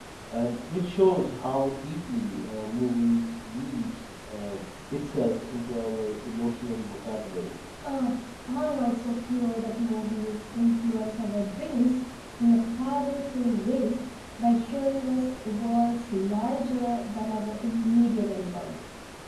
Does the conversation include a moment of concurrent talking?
No

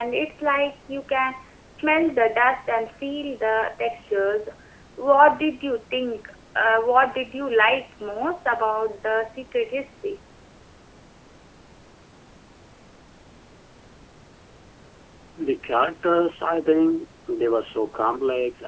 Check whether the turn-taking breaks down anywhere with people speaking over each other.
No

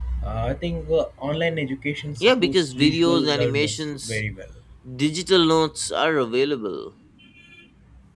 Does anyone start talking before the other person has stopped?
Yes, from 2.2 s

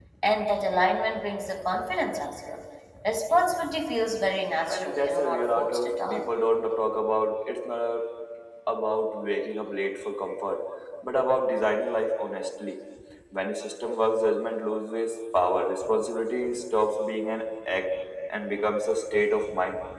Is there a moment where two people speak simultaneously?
Yes, from 4.7 s

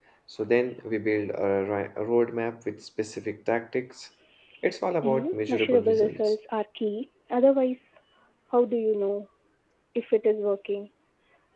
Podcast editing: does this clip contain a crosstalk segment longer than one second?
Yes, from 5.0 s

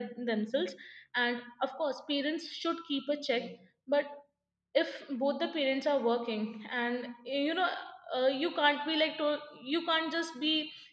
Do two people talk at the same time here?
No

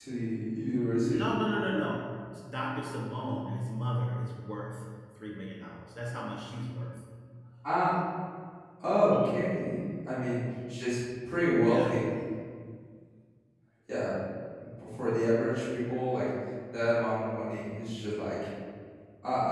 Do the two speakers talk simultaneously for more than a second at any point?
No

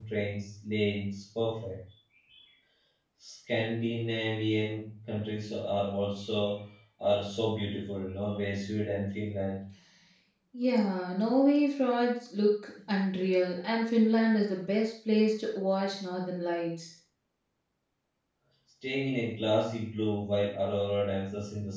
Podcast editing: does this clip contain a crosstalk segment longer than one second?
No

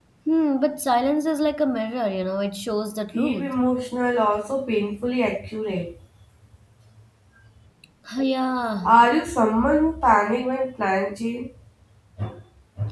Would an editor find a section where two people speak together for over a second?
No

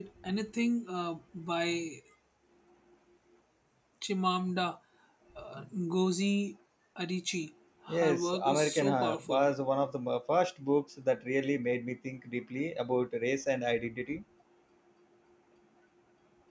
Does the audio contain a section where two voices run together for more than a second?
Yes, from 8.0 s

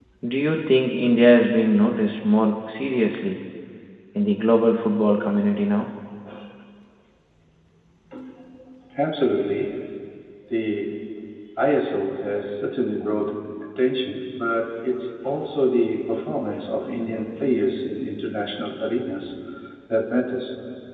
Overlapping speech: No

